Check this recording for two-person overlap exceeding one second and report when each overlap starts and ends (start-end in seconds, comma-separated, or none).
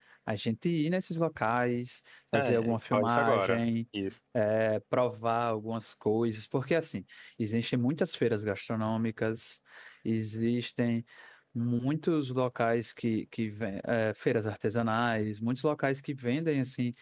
2.3-3.6